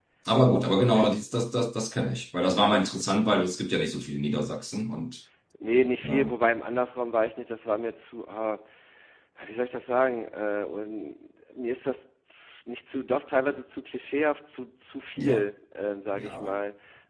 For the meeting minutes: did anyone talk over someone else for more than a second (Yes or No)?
No